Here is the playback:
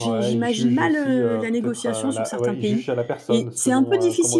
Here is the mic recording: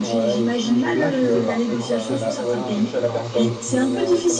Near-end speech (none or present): present